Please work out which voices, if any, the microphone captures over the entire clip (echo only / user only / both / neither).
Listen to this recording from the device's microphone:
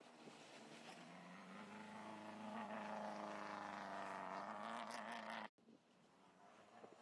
neither